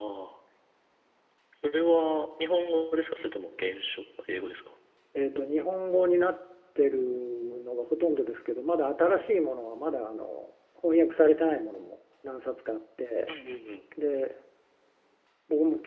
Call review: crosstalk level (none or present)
none